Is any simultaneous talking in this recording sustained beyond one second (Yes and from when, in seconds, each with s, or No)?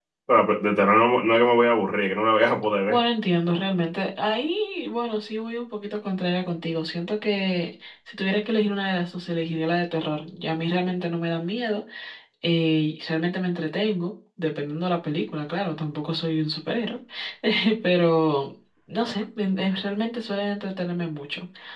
No